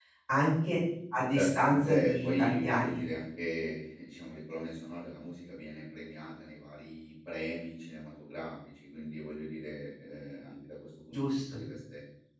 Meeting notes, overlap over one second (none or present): present